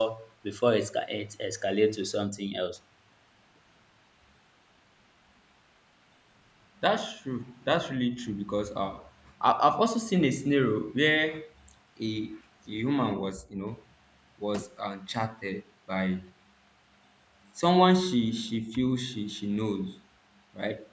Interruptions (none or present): none